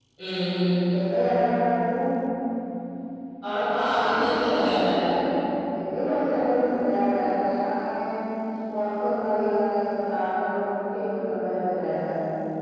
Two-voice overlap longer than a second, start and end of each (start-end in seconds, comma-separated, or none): 3.8-5.1